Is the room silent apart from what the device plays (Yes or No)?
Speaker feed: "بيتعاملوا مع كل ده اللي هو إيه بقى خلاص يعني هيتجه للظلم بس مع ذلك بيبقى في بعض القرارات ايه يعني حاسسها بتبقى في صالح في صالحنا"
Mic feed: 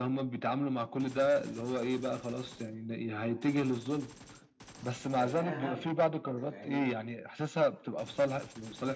No